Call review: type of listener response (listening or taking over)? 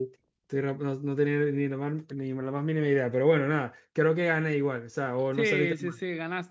taking over